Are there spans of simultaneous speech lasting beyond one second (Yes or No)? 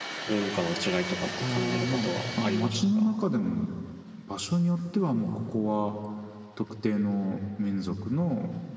Yes